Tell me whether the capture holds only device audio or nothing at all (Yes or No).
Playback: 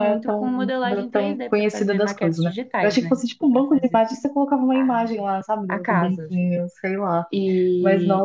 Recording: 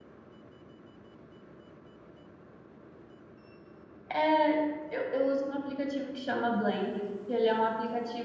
No